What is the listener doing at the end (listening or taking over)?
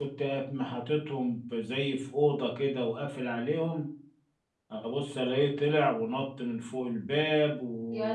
listening